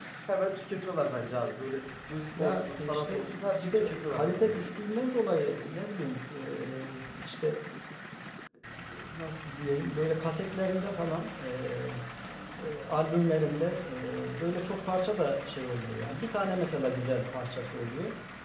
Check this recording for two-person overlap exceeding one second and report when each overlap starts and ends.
2.4-4.7

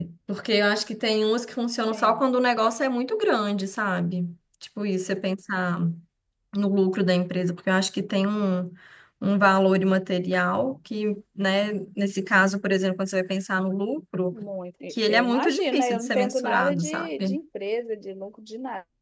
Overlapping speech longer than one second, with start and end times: 14.9-17.4

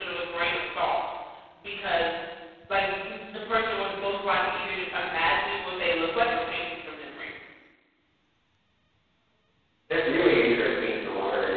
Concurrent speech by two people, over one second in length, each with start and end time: none

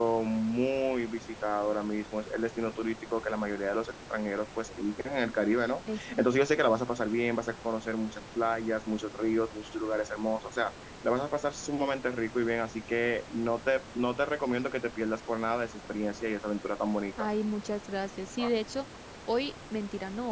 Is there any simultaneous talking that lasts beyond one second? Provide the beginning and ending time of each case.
none

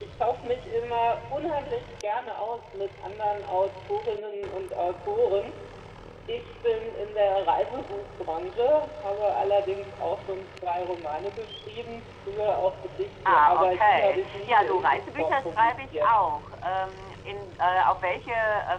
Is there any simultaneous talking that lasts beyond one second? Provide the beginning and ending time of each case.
13.3-16.1

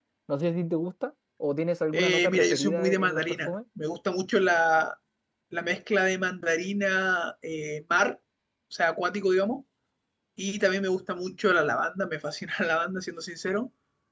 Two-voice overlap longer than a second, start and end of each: 2.0-3.5

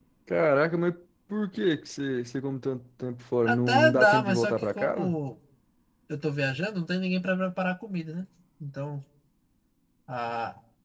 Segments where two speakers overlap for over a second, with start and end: 3.5-5.2

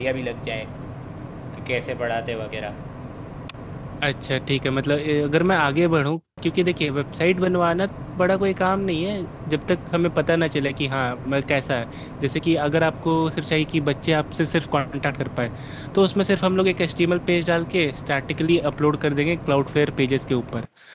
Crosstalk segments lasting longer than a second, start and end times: none

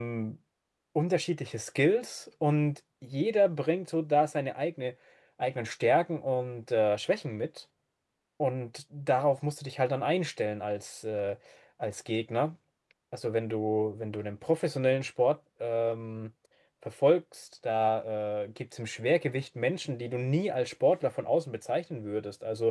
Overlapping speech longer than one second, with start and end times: none

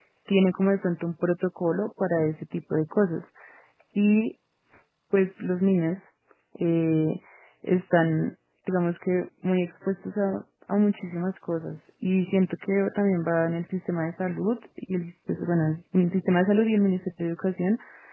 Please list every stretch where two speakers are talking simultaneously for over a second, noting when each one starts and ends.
none

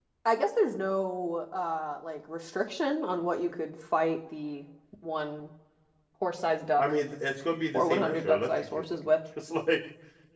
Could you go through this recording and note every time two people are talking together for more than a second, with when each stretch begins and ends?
7.7-9.0

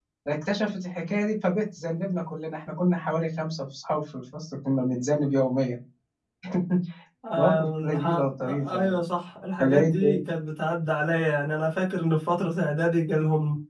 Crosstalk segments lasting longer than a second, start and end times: 7.4-9.0

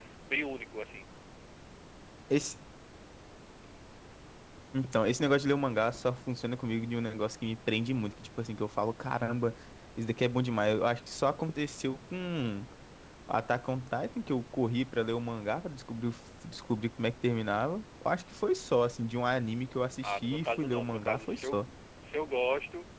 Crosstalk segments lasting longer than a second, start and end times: 20.0-21.6

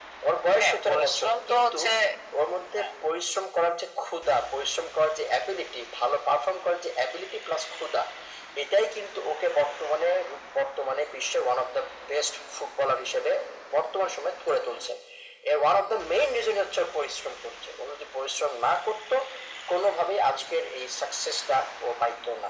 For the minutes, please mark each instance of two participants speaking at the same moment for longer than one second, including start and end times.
0.6-1.8

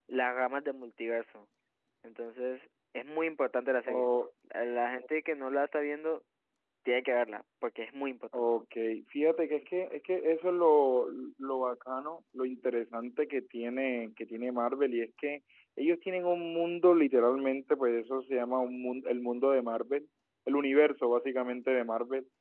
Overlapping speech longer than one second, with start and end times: none

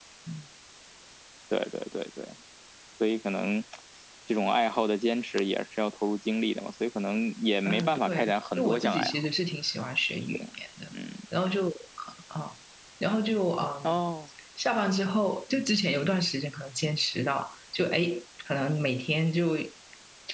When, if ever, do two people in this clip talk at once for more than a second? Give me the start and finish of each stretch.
7.6-9.1

